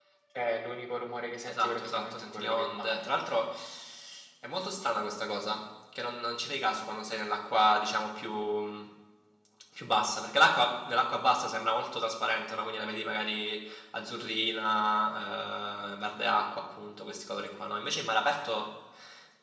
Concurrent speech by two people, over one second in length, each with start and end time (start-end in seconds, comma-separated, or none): 1.4-3.0